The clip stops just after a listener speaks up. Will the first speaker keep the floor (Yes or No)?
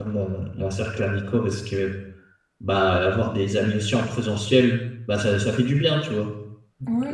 No